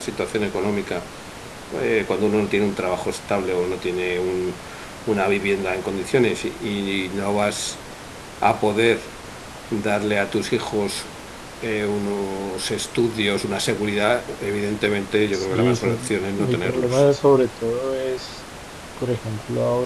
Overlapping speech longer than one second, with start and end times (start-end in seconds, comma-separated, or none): 15.4-17.0